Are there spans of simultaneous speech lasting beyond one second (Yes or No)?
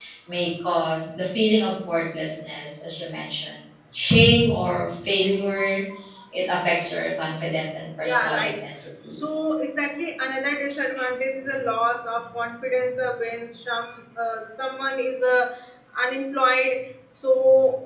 No